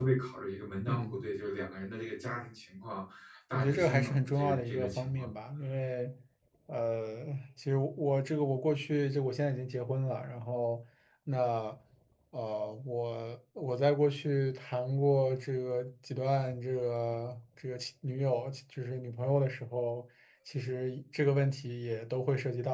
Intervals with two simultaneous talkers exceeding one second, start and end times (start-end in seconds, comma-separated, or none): 3.5-5.3